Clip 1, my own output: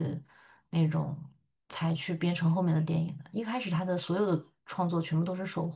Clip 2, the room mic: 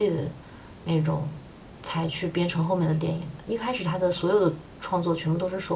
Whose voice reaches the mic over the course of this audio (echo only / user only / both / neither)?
echo only